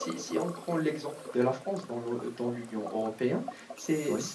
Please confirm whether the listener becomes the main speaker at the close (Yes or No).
No